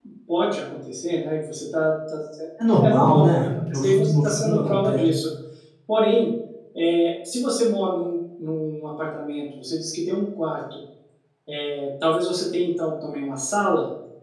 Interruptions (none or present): present